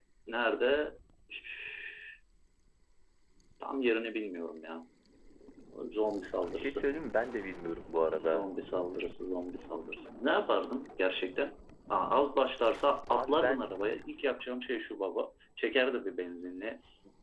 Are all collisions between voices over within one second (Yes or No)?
Yes